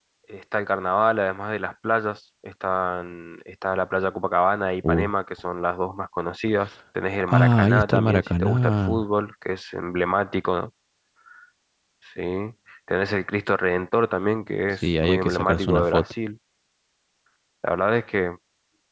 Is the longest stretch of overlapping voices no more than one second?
No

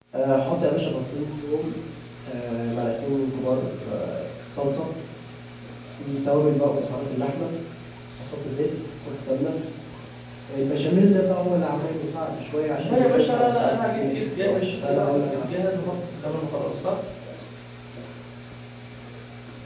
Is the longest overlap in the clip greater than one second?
Yes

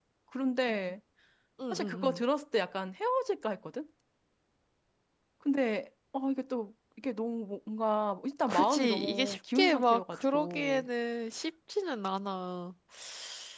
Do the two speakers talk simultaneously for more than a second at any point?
Yes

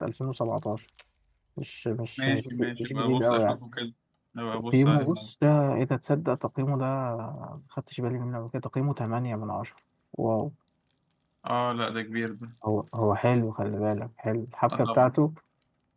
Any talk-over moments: Yes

